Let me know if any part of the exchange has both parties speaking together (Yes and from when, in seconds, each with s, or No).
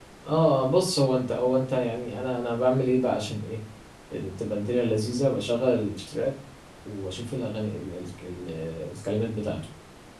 No